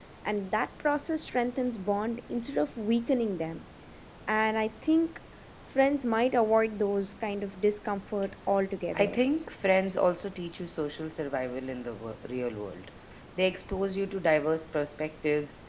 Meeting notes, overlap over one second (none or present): none